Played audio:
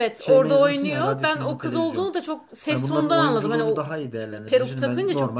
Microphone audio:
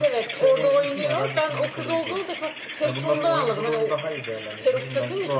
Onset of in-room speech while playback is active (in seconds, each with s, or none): none